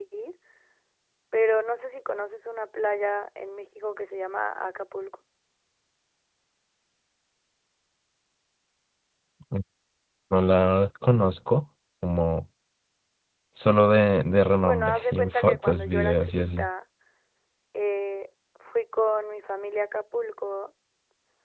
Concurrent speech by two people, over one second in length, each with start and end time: 14.6-16.6

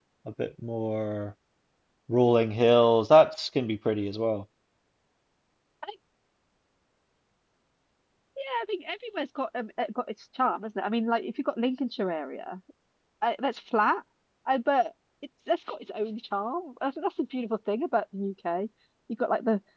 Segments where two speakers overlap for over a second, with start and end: none

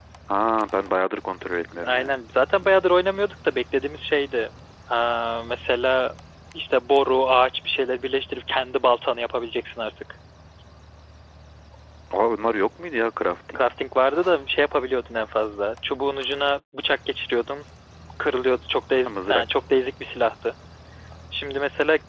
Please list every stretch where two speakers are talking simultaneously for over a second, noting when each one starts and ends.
none

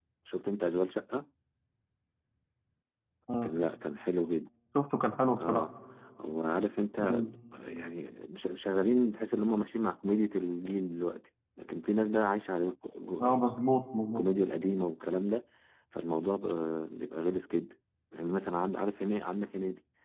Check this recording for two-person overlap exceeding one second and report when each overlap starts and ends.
none

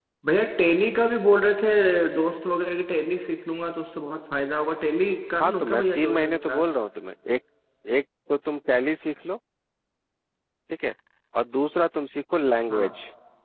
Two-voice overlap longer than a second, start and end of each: 5.4-6.6

